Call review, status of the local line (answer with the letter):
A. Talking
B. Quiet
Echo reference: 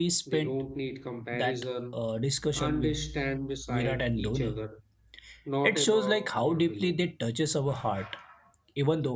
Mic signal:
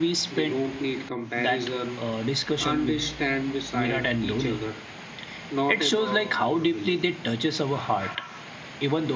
B